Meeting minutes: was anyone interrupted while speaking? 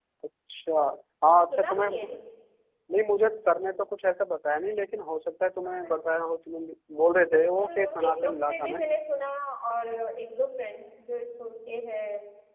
Yes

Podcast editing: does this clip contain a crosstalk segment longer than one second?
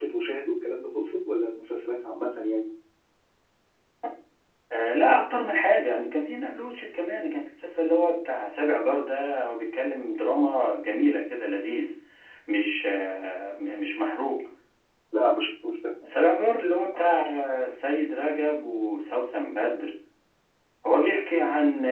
No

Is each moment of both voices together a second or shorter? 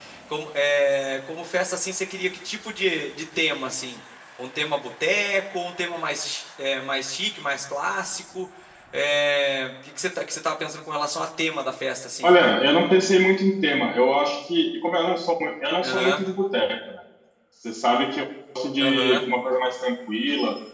Yes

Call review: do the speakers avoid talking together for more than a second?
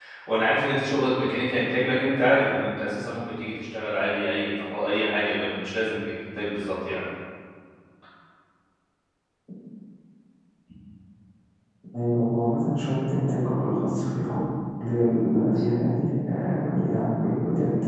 Yes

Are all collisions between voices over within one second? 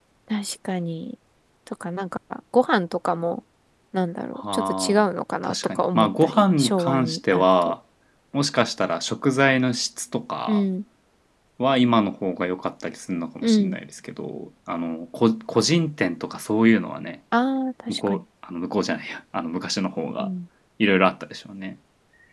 No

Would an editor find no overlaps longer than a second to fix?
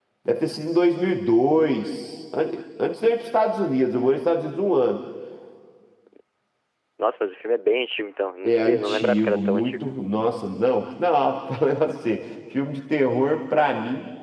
No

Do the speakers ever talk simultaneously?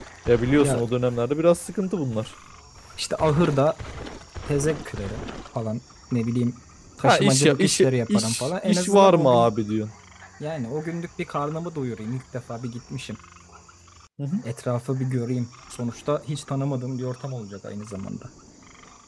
Yes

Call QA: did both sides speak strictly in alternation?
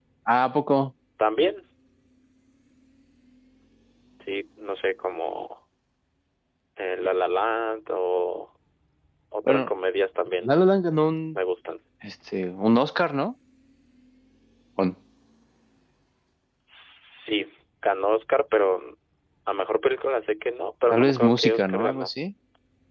No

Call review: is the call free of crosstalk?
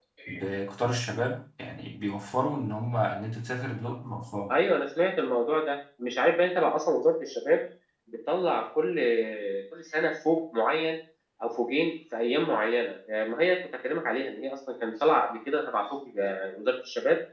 Yes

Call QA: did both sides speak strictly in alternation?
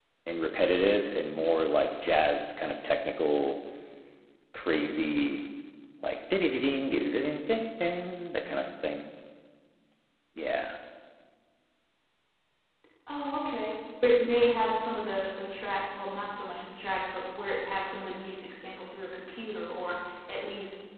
Yes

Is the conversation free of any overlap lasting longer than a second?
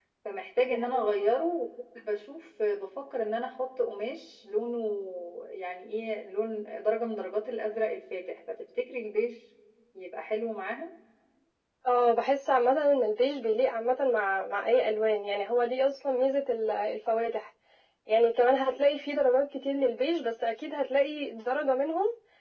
Yes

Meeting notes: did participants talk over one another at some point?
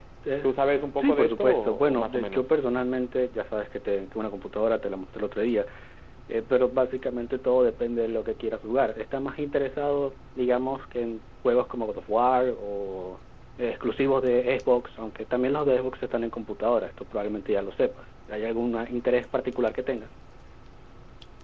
Yes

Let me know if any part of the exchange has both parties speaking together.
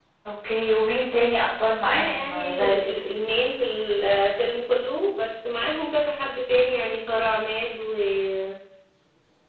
Yes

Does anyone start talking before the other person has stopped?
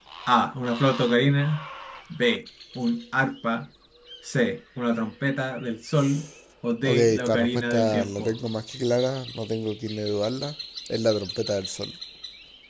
Yes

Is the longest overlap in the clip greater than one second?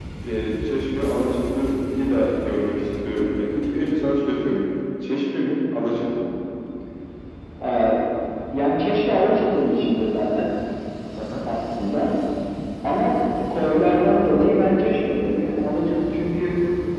No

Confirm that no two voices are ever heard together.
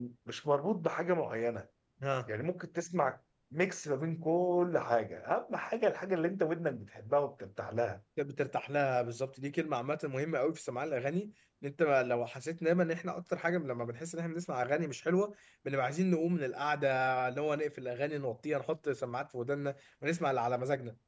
Yes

